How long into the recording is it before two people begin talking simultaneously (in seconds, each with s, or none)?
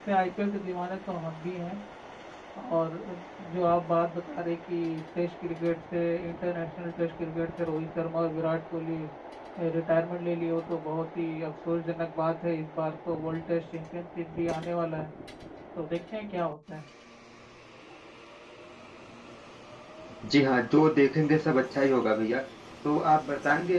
none